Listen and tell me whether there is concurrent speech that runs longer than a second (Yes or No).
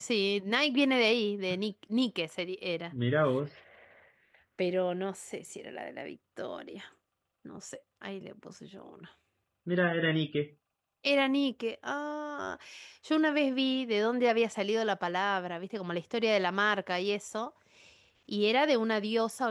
No